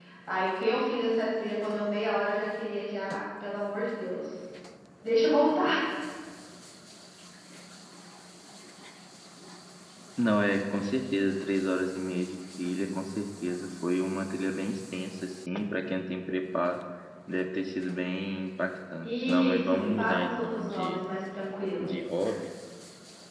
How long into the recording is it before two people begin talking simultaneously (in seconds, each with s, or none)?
19.0 s